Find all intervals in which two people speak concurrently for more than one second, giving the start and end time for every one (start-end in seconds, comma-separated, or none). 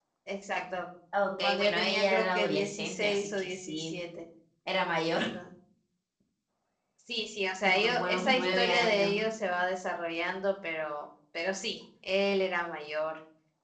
1.4-3.9, 7.6-9.2